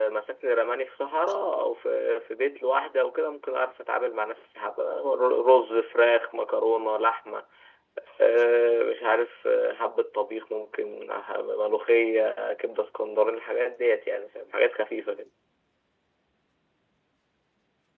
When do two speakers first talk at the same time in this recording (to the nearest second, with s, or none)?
none